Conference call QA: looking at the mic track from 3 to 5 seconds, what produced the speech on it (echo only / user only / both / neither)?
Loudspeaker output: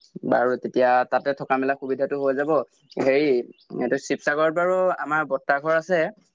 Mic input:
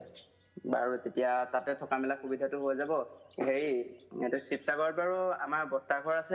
echo only